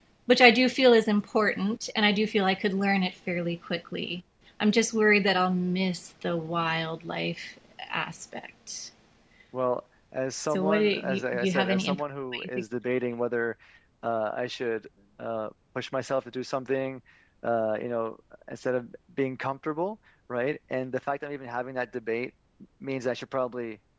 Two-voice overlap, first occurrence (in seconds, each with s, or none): 10.5 s